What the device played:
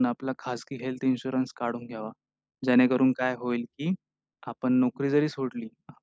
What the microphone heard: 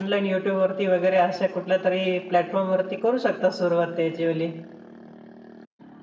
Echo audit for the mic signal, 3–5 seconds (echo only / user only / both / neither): user only